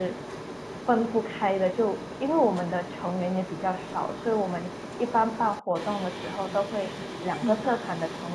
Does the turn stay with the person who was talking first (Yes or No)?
Yes